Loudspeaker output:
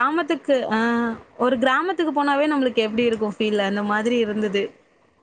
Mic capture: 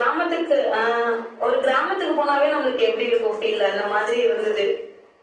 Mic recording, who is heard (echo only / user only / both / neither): echo only